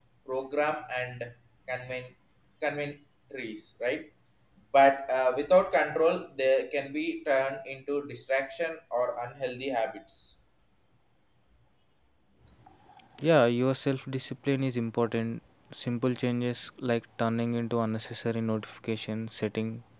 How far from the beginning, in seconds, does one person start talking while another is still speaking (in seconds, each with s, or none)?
none